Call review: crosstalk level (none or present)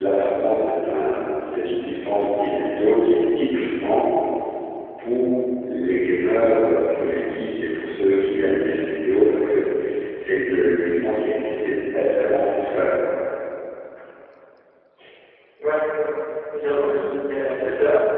none